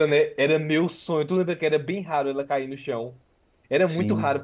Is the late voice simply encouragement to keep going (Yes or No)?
Yes